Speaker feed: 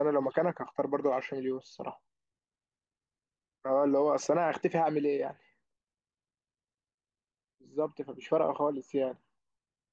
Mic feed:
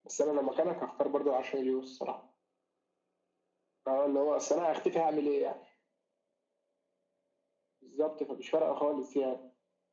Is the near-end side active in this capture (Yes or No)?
No